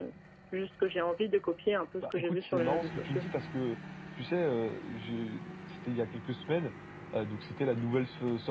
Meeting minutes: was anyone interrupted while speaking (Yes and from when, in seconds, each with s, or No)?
Yes, from 2.0 s